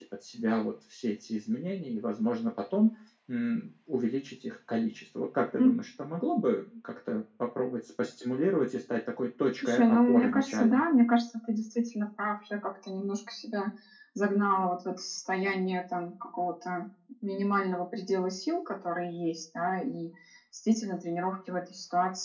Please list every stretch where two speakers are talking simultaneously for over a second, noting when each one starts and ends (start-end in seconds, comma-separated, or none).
9.6-10.8